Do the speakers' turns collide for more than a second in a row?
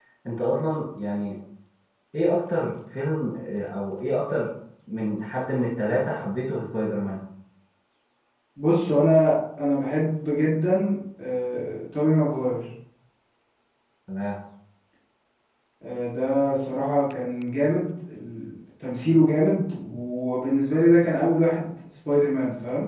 No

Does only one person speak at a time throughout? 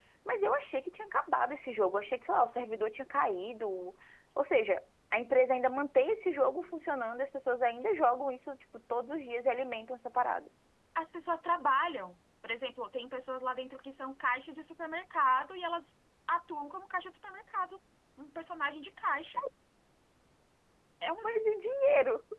Yes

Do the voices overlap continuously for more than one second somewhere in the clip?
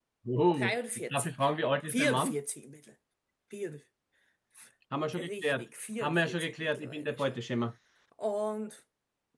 Yes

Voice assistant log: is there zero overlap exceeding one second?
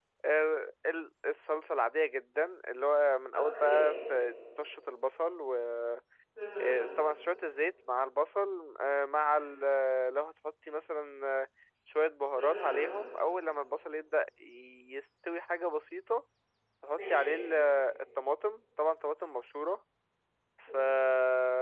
Yes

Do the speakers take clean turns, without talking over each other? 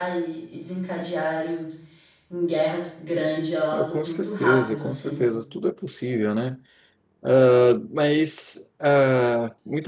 No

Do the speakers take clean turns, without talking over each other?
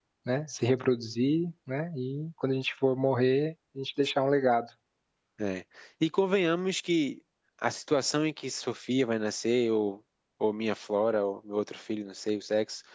Yes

